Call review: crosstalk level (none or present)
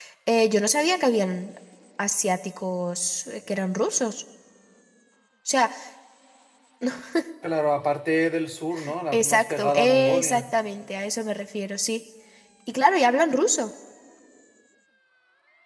present